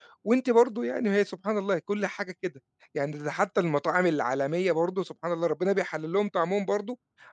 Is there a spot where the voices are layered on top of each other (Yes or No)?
No